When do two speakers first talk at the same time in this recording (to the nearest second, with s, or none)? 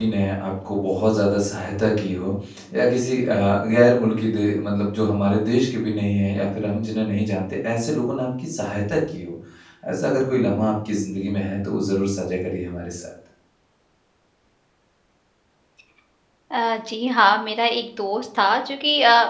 none